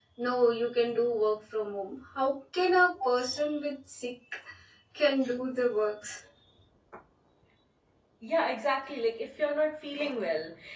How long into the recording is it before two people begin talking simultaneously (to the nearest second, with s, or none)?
none